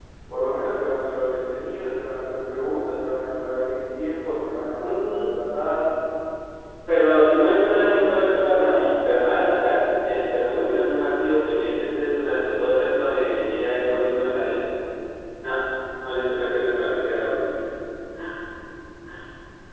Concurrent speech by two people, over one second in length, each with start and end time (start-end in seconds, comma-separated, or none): 7.4-8.9